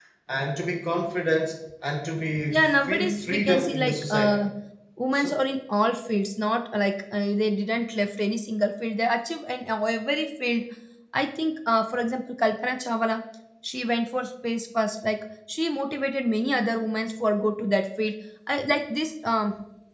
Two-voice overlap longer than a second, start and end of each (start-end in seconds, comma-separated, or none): 2.5-4.4